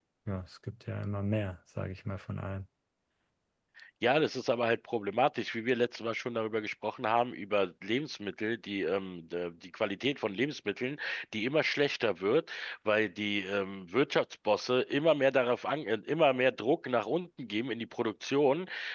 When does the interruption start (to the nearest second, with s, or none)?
none